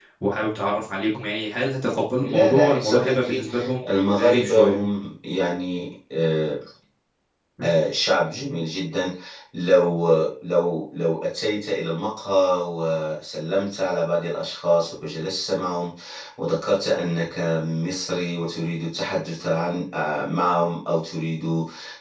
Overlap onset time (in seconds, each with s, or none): 2.2 s